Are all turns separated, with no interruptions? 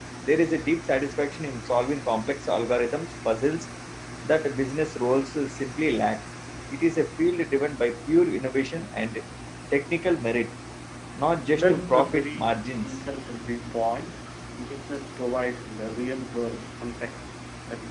No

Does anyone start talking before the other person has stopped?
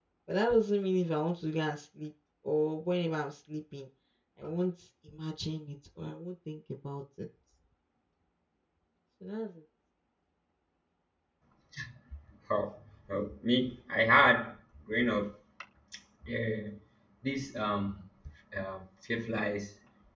No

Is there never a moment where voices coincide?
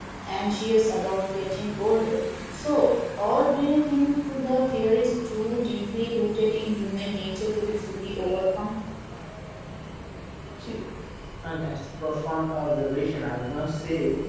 Yes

